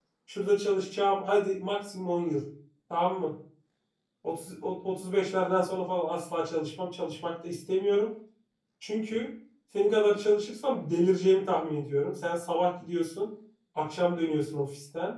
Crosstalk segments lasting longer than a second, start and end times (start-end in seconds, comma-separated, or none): none